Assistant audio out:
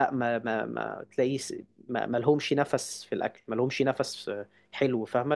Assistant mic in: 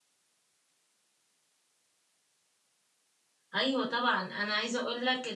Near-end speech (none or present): present